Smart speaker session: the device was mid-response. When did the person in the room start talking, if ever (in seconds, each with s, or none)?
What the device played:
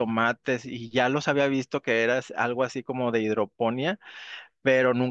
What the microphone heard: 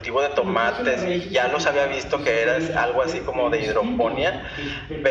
0.3 s